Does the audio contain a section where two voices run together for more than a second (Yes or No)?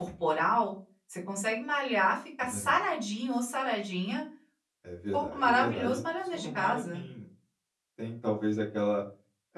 Yes